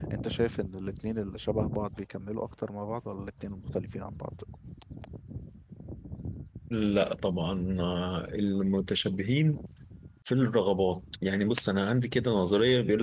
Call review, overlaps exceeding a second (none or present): none